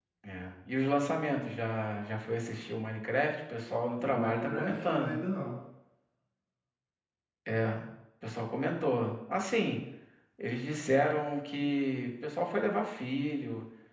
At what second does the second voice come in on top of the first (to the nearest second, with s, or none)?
4 s